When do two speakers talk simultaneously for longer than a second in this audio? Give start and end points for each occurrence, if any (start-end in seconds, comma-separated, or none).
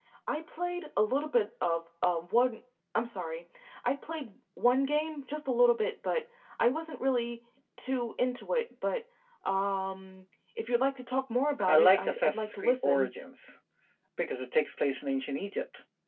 11.7-13.1